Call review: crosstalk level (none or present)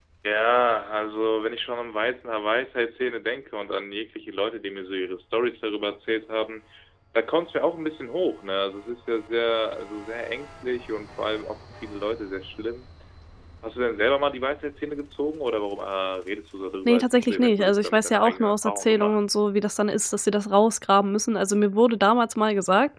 present